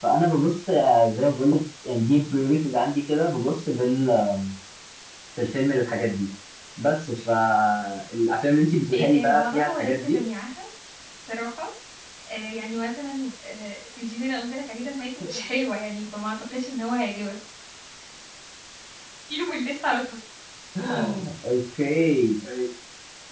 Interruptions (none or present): present